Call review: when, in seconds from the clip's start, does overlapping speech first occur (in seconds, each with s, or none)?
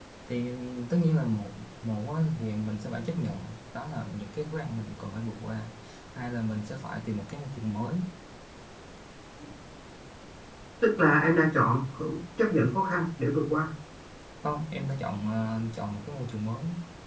none